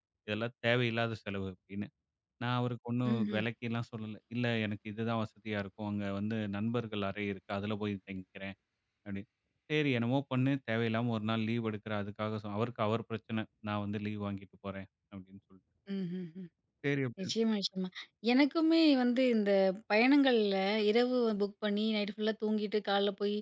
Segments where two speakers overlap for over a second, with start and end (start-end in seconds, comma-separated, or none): none